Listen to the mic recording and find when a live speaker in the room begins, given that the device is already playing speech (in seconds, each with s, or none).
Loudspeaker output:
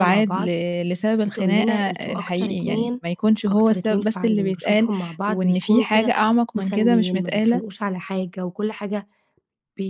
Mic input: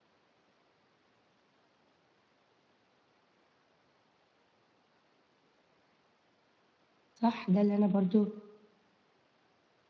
7.1 s